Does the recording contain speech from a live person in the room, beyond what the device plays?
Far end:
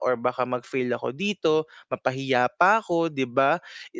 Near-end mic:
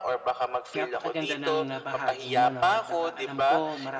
Yes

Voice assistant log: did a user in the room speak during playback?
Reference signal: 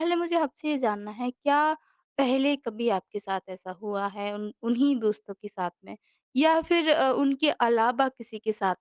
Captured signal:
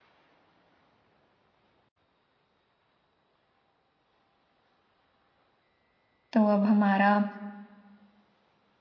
Yes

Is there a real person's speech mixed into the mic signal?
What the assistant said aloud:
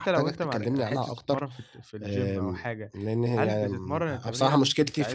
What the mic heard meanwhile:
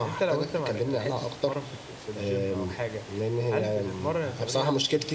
No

